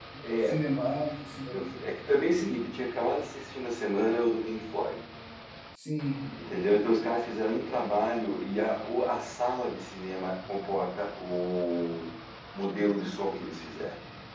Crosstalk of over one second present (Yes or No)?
No